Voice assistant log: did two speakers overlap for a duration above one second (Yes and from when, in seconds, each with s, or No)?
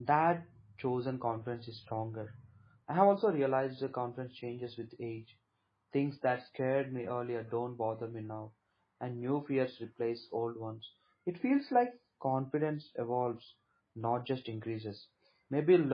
No